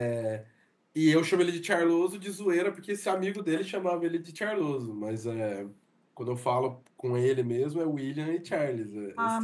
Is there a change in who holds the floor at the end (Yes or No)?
Yes